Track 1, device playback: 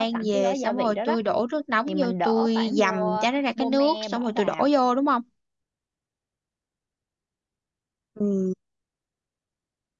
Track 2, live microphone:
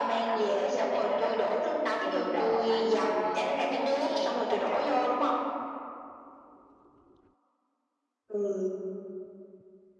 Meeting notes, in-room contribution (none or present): none